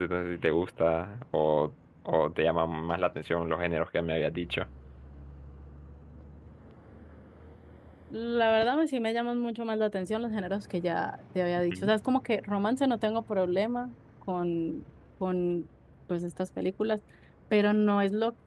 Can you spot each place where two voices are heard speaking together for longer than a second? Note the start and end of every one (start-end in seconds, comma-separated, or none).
none